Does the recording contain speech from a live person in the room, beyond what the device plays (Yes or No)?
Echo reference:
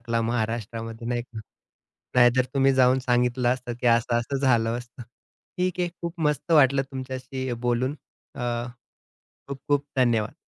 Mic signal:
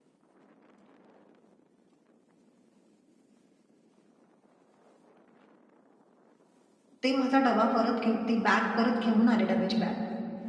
Yes